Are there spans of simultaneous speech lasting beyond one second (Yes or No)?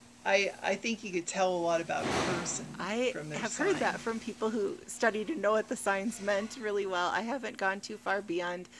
Yes